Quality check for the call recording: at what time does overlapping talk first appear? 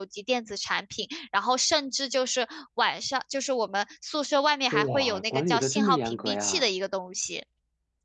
4.7 s

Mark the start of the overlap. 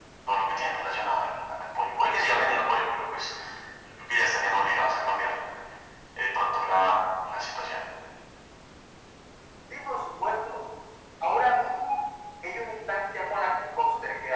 none

